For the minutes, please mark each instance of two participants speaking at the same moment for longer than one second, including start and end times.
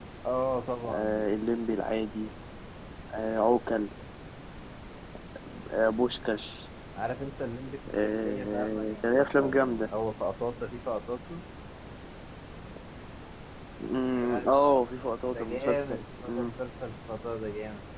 8.0-9.9, 15.3-16.5

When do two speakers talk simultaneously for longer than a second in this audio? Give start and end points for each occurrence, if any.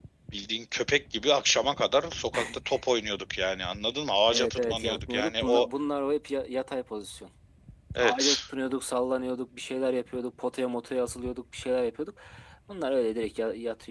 4.3-5.7

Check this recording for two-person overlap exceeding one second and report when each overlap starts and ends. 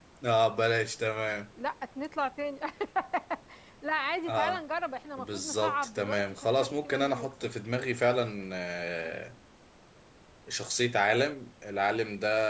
5.2-7.3

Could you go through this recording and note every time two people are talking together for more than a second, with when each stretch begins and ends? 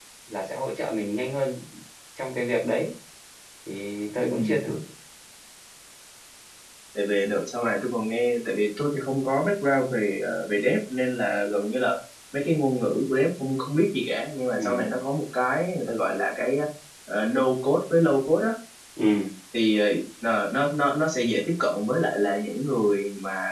none

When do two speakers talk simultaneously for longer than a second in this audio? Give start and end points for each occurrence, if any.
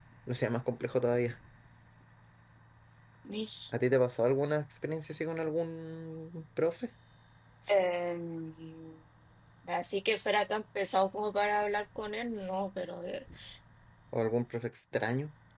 none

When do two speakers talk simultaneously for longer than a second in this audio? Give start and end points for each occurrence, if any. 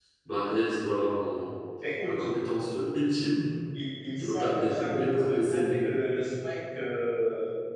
4.2-5.8

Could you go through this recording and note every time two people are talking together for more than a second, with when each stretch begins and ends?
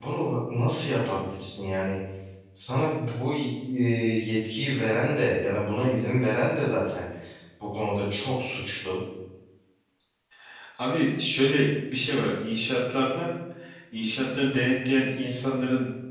none

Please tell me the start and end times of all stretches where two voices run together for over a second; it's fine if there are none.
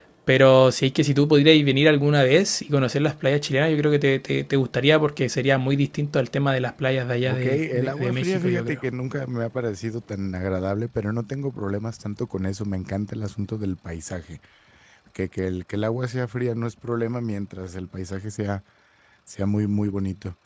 7.3-8.8

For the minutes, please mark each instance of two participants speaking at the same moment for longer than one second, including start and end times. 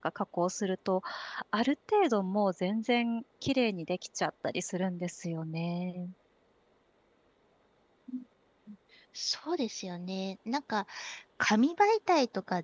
none

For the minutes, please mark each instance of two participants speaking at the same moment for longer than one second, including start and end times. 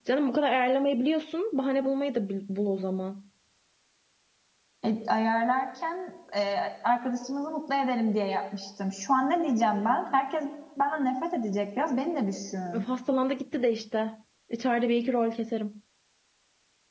none

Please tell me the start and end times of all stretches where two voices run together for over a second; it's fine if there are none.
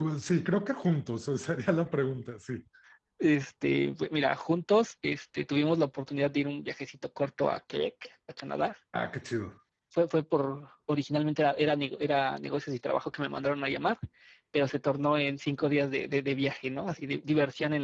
none

